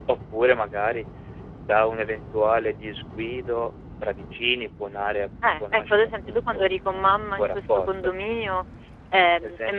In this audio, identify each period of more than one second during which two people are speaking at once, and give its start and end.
5.7-8.1

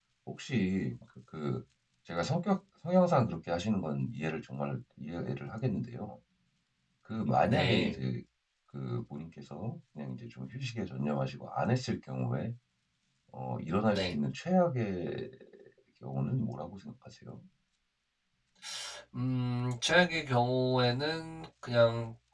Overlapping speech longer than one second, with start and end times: none

